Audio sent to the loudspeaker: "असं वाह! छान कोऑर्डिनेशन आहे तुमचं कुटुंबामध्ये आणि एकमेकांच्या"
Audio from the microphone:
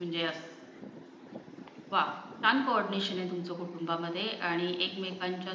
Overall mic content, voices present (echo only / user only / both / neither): echo only